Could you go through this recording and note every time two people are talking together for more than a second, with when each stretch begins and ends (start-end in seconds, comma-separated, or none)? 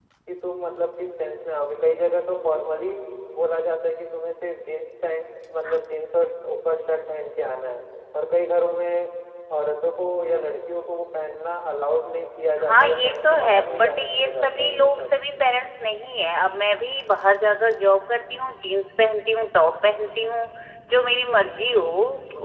12.7-15.0